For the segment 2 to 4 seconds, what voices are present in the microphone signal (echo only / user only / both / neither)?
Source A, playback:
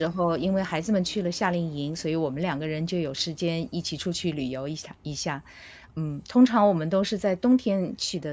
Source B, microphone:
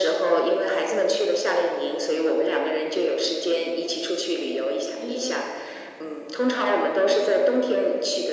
echo only